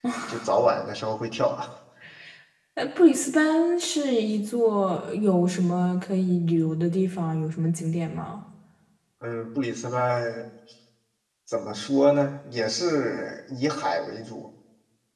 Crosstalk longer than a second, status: none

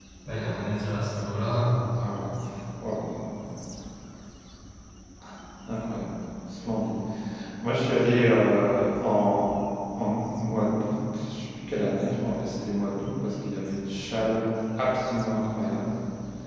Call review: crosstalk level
none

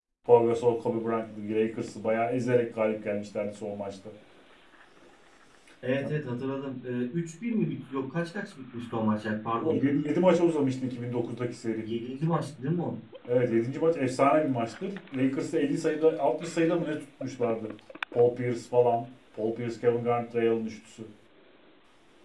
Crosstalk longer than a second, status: none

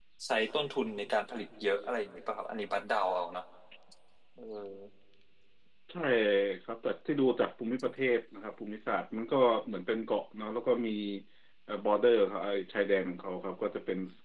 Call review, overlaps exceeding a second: none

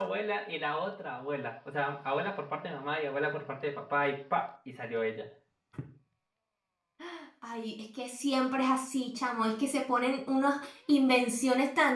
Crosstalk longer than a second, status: none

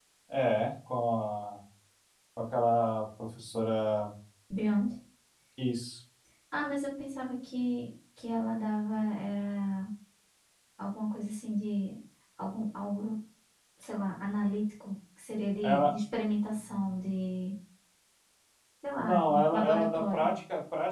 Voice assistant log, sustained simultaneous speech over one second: present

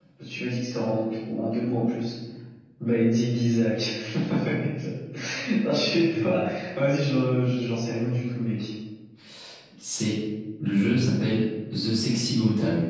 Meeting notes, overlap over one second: none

